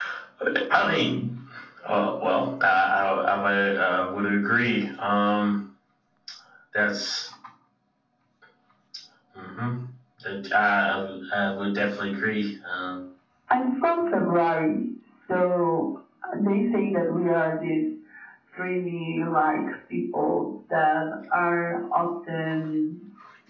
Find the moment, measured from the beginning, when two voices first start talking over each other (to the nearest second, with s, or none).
none